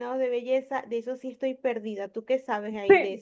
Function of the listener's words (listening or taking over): taking over